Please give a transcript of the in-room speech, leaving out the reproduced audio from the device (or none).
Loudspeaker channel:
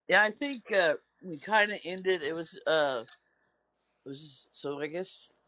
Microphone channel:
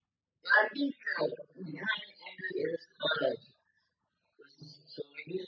none